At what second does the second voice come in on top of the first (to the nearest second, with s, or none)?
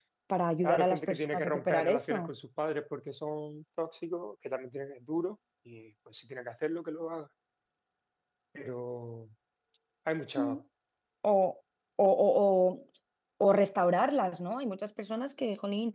1 s